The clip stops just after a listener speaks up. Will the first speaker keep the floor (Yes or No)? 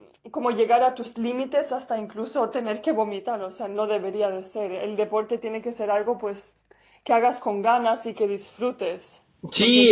No